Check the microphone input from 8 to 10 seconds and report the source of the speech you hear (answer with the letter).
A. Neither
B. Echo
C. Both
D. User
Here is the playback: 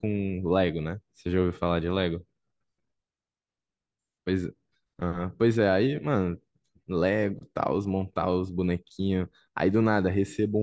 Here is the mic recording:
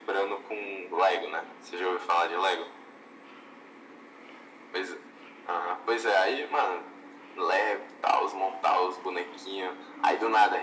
B